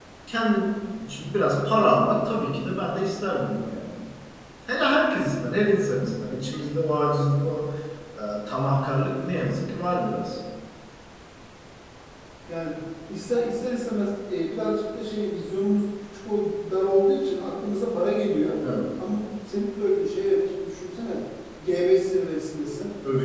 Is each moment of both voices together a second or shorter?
Yes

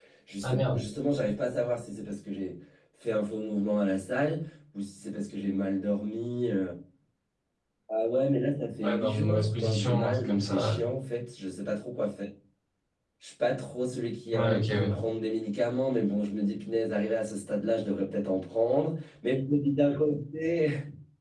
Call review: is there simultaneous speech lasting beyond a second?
Yes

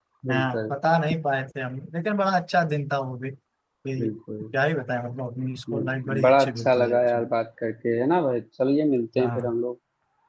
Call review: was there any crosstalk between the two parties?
Yes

